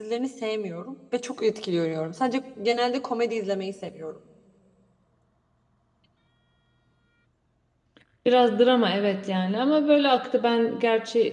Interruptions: none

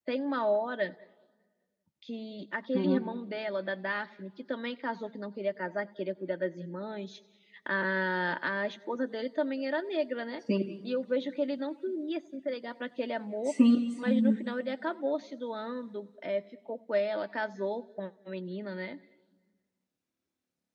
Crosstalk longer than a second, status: none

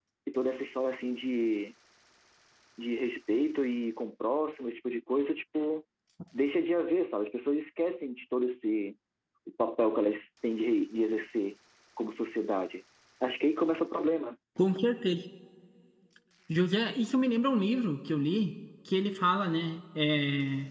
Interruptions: none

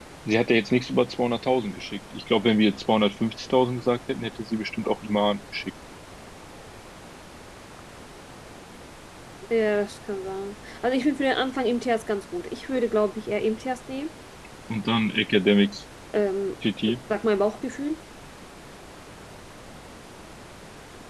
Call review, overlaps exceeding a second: none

